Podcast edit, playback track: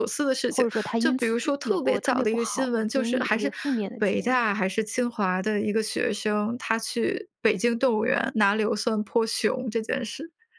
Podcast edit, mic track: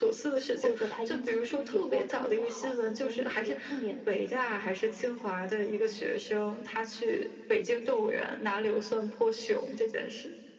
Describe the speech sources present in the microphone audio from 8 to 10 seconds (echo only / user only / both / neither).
echo only